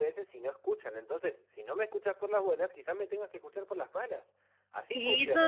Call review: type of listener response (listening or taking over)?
taking over